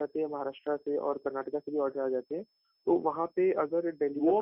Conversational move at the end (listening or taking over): taking over